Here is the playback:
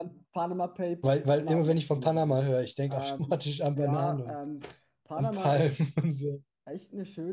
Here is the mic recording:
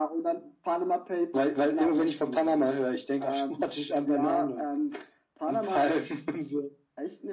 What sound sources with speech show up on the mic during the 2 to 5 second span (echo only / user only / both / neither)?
echo only